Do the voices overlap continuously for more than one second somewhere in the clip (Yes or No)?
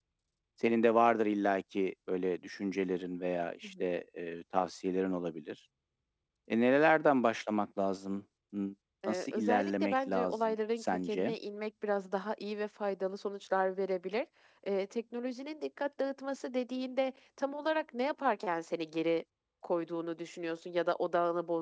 Yes